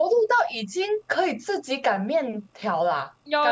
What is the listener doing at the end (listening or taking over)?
taking over